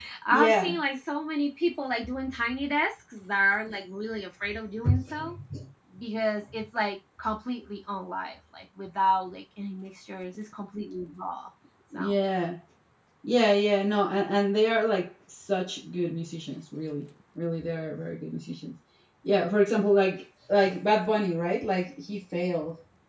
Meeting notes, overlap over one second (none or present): none